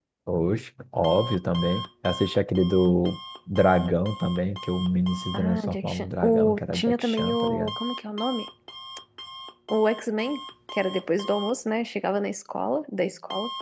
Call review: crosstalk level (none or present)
present